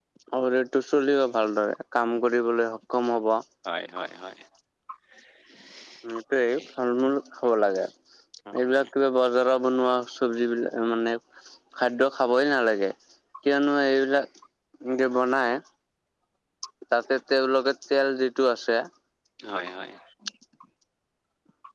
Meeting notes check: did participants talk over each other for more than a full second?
No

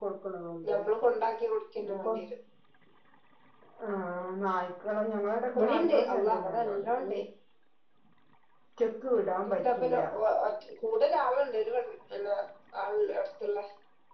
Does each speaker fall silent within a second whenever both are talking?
No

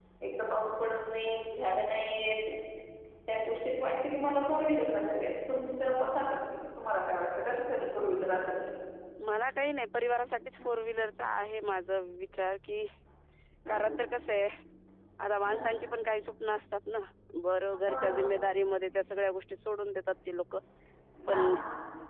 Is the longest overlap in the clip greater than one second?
No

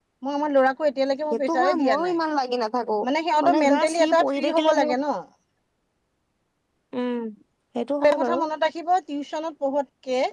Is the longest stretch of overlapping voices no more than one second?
No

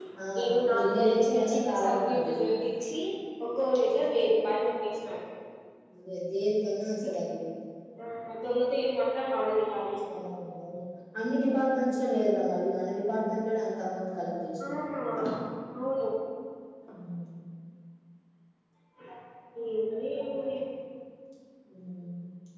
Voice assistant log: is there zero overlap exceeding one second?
No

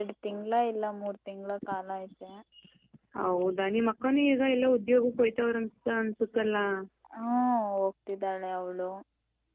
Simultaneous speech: No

